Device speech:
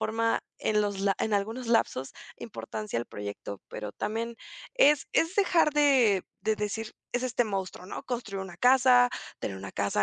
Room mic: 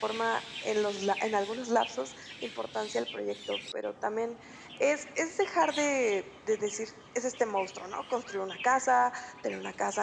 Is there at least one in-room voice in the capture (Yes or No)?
No